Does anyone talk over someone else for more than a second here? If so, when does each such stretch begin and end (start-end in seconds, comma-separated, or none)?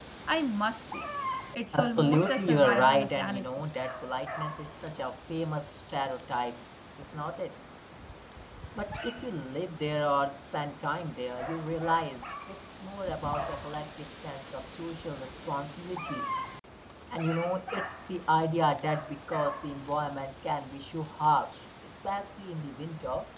1.7-3.6